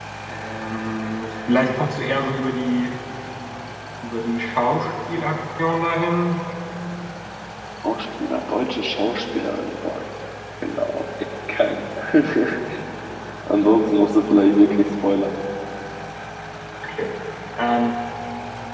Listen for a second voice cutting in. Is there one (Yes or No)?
No